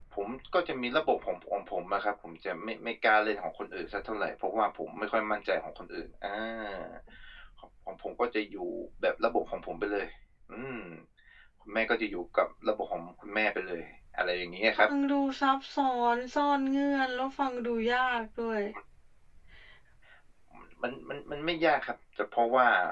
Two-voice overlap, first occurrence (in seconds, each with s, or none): none